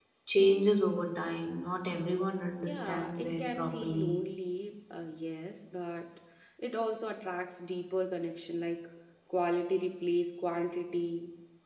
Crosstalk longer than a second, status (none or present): present